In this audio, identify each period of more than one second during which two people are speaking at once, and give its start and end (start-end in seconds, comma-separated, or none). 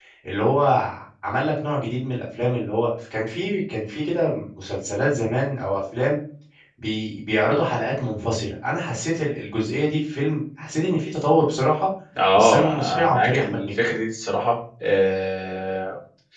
12.4-13.9